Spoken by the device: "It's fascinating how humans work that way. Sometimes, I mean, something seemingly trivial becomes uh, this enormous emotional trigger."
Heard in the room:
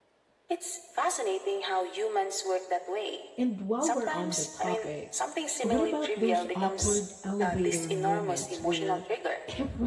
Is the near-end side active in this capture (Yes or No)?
Yes